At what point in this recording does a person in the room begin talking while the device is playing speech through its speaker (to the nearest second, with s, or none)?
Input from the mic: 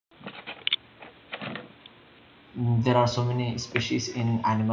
3 s